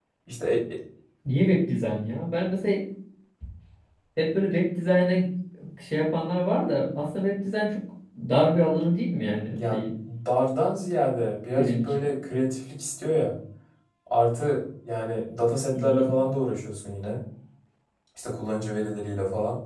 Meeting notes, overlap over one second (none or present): none